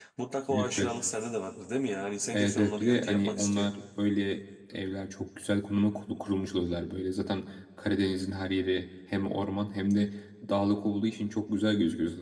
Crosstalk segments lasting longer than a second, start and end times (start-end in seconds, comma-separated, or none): 2.3-3.7